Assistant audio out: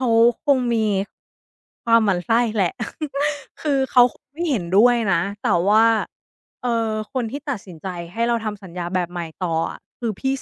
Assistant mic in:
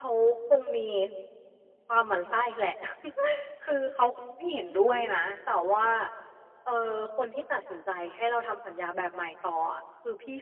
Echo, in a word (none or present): present